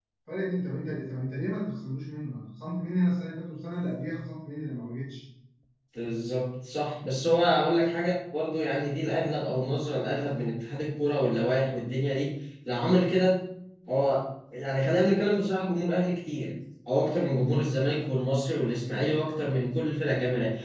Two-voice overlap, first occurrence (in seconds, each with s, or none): none